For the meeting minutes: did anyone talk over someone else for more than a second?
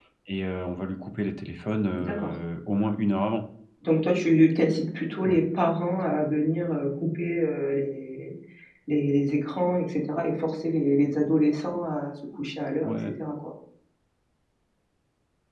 No

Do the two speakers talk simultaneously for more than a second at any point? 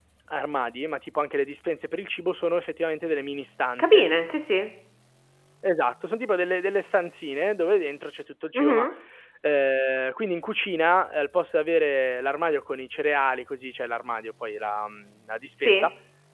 No

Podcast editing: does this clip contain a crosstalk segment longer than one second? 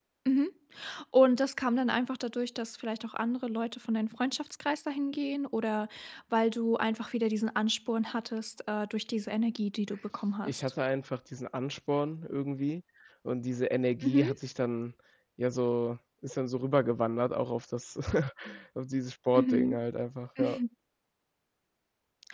No

